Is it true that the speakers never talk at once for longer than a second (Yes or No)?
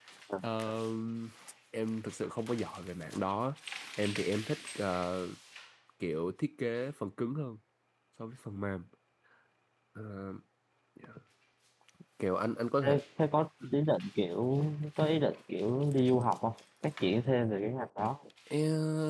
Yes